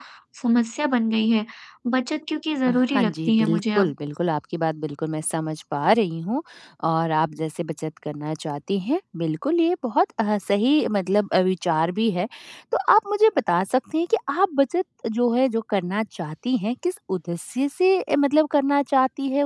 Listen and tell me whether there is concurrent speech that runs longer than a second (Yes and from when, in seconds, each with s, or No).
Yes, from 2.7 s